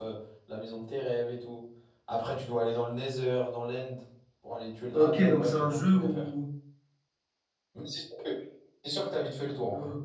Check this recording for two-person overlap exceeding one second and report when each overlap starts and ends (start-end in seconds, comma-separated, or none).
4.9-6.3